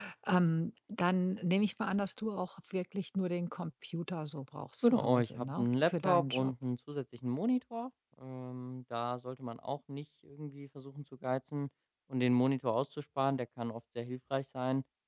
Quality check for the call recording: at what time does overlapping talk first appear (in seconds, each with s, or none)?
4.8 s